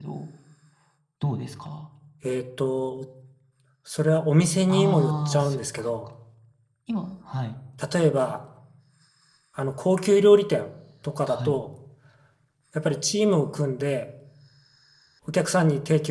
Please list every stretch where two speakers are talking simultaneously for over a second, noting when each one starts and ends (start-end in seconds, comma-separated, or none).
4.7-6.0